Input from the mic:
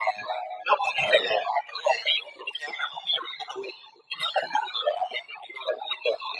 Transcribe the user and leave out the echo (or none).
ừ